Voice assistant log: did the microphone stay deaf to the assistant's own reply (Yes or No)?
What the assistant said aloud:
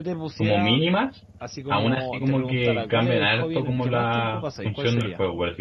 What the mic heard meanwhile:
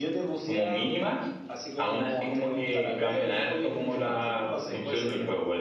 No